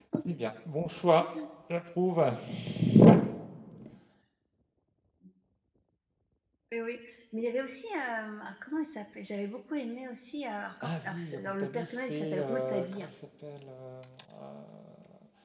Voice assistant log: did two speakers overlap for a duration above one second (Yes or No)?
Yes